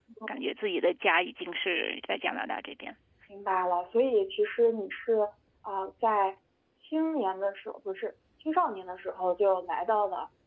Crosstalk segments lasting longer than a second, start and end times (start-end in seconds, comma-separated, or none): none